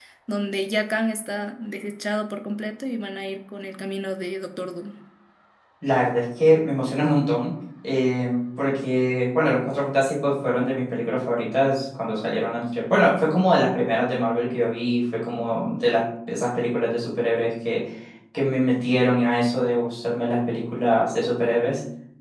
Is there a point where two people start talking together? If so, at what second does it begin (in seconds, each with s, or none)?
none